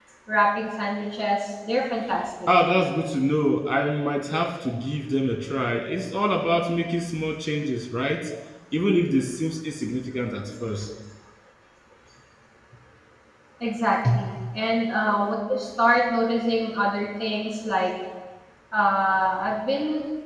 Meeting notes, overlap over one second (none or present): none